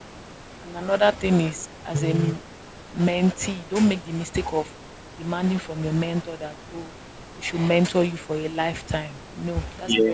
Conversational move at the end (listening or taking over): taking over